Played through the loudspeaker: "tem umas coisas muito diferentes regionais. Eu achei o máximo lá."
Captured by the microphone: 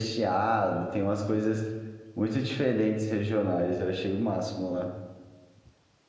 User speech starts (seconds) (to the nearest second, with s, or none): none